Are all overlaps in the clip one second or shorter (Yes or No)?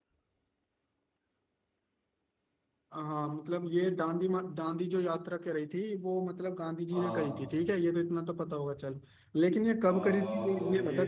No